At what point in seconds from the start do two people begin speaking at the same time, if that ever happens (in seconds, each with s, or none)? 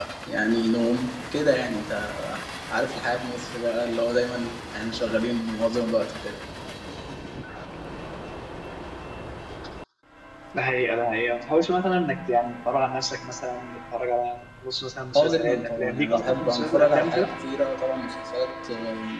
15.2 s